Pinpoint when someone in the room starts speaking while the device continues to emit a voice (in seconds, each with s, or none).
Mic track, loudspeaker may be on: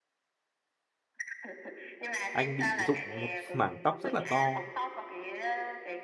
2.3 s